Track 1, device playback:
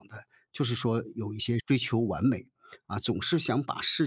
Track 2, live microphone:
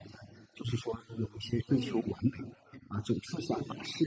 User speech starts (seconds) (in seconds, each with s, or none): 1.7 s